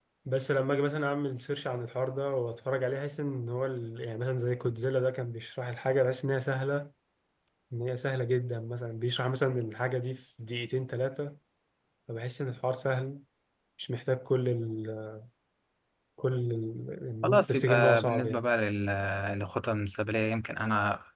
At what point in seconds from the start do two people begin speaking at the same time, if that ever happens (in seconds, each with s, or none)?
17.2 s